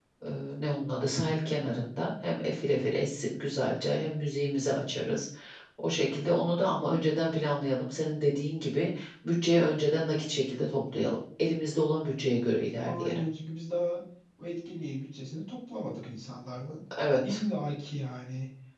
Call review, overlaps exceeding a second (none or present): none